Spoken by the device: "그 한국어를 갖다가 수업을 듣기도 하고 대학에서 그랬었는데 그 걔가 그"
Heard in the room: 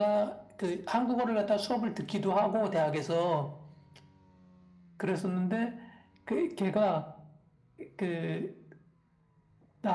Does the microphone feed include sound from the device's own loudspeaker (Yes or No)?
Yes